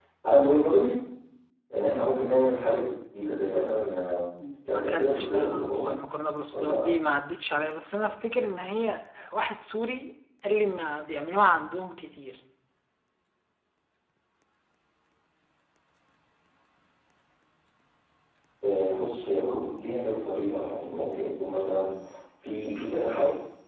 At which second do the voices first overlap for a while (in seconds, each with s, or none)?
4.7 s